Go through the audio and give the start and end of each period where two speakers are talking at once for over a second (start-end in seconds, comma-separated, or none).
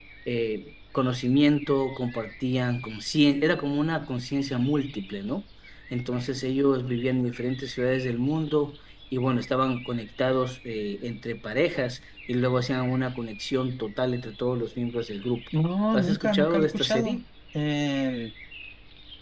15.9-17.2